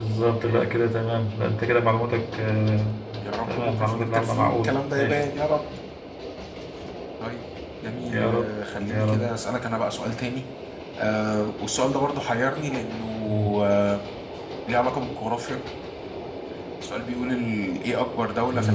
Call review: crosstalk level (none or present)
present